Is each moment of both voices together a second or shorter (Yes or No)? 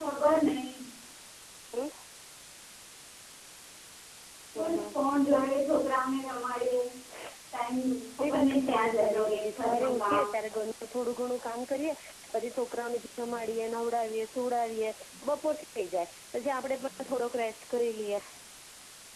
No